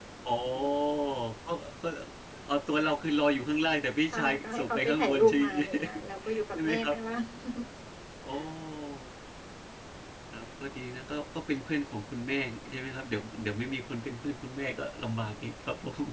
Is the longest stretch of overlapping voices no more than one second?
No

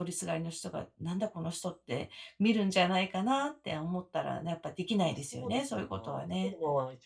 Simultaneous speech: Yes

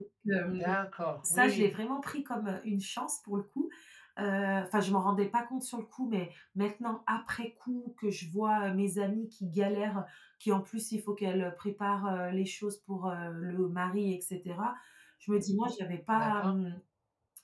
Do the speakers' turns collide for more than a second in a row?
No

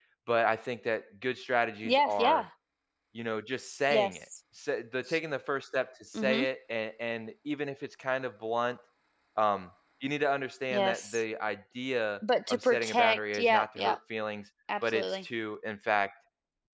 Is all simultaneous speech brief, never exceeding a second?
No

